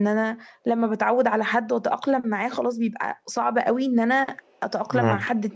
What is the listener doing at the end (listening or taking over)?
listening